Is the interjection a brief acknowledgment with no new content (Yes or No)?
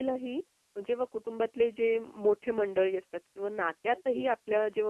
Yes